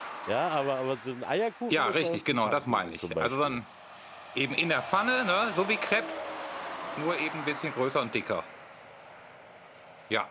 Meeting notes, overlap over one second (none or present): present